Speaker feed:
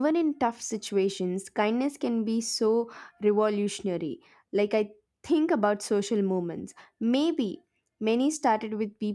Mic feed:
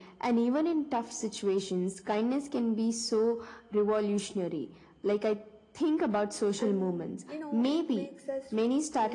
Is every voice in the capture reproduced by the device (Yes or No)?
No